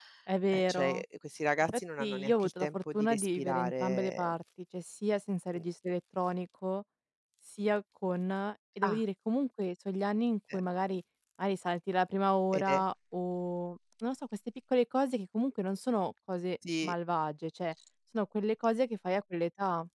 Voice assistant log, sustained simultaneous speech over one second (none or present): present